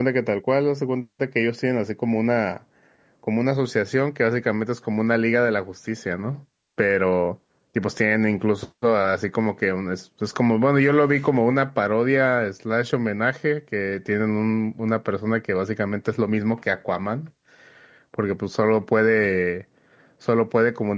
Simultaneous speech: No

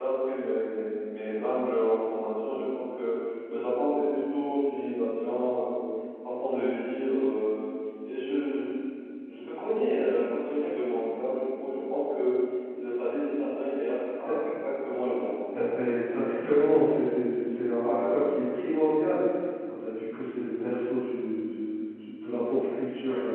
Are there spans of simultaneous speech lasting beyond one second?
No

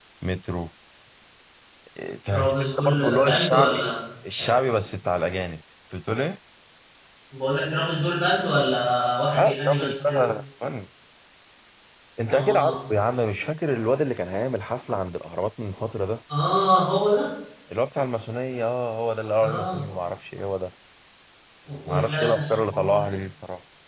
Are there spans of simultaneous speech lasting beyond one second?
Yes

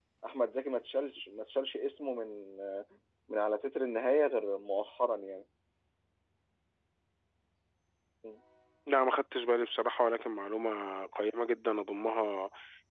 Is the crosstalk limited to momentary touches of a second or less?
Yes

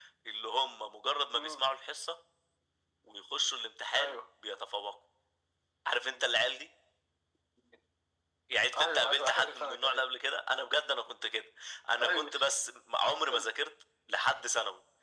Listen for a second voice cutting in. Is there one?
Yes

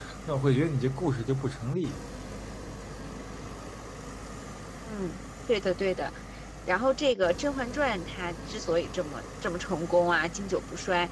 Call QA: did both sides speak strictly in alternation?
Yes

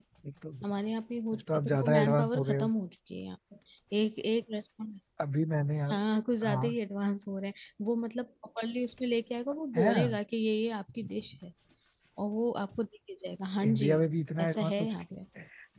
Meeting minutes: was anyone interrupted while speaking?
Yes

